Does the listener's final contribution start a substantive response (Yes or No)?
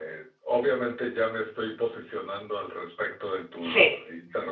No